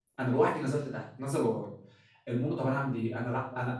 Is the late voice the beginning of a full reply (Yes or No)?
No